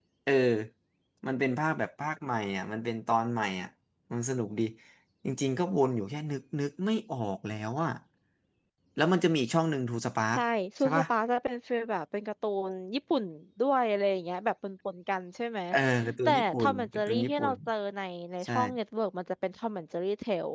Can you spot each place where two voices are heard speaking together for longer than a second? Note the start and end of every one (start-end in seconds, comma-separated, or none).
16.2-17.5